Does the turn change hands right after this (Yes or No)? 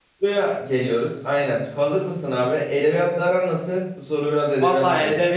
Yes